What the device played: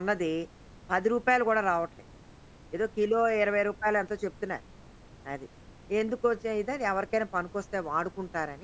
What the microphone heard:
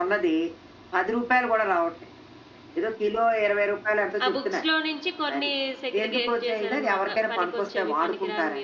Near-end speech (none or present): present